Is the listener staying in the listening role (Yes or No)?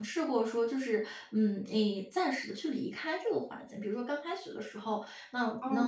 Yes